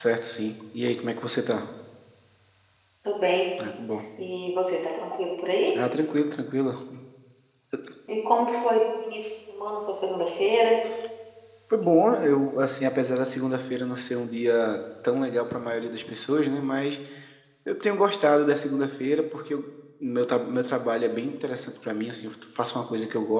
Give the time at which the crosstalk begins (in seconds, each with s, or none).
none